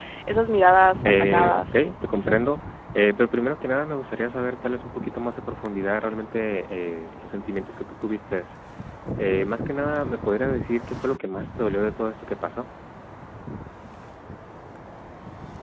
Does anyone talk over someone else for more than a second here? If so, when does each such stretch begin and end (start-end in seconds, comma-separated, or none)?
1.0-2.6